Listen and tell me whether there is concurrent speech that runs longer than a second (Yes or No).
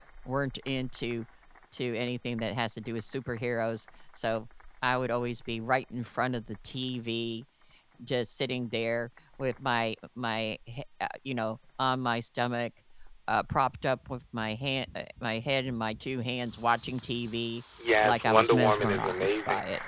Yes